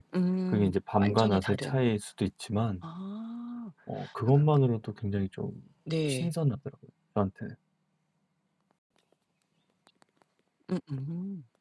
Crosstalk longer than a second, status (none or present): present